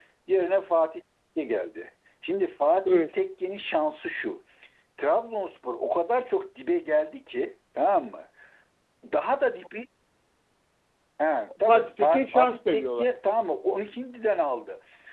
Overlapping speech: Yes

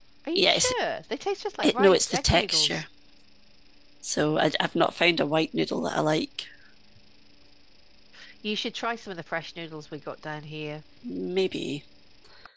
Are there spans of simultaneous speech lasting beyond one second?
Yes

